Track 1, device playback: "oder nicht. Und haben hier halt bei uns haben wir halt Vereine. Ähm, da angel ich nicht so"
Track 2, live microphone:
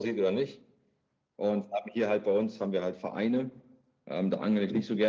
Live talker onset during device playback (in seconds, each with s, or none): none